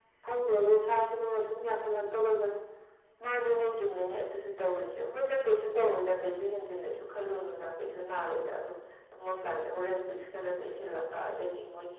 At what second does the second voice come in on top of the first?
none

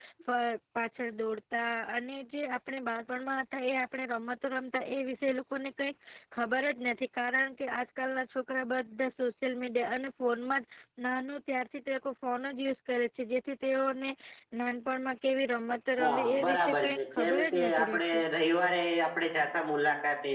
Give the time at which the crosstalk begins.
16.0 s

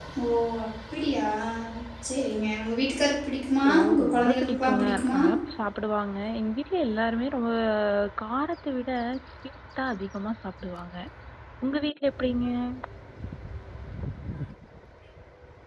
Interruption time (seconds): 3.6 s

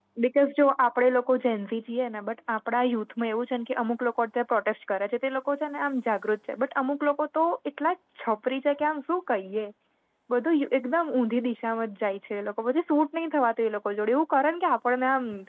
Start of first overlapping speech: none

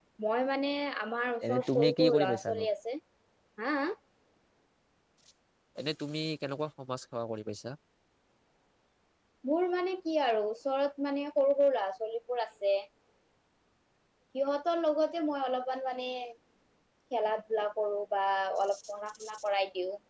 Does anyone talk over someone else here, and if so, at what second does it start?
1.4 s

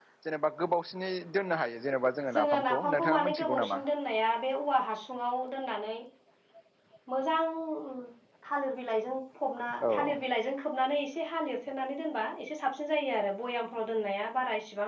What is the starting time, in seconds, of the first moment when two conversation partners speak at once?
2.3 s

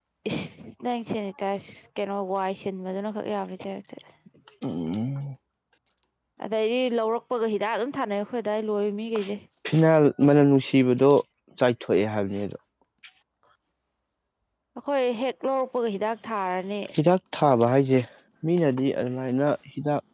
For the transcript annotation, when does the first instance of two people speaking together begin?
none

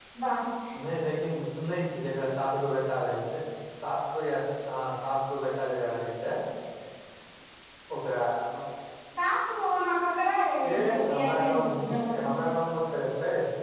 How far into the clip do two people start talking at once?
10.6 s

